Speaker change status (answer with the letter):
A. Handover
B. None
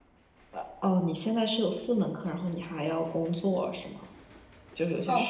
A